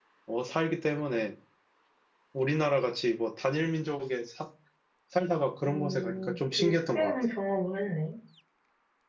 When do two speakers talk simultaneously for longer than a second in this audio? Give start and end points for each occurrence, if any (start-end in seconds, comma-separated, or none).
5.6-7.1